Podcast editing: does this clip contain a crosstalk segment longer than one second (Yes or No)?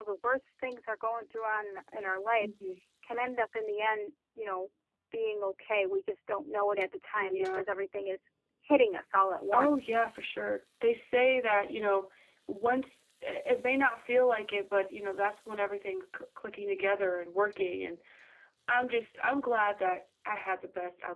No